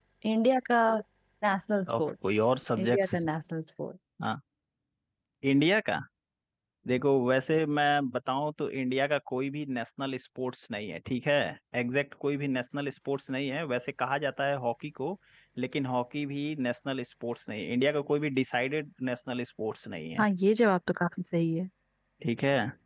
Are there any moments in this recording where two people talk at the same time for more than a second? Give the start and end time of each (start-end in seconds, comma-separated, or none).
none